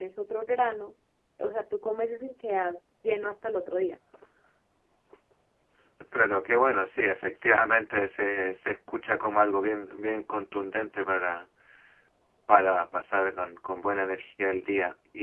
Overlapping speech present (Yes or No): No